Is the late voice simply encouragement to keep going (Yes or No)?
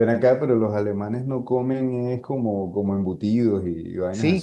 No